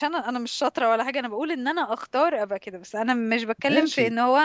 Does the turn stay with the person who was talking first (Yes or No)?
Yes